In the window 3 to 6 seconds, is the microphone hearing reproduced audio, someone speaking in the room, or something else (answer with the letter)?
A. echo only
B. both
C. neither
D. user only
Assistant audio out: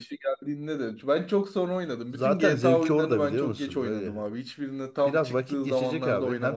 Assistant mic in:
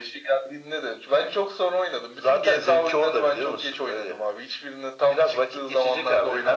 A